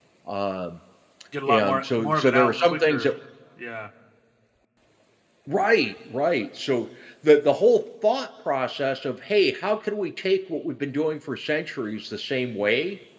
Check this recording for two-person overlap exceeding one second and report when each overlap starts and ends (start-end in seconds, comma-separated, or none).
1.5-3.1